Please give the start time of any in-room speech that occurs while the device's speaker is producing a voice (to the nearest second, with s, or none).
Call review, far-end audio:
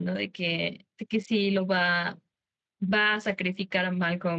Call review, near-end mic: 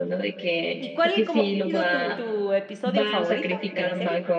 1 s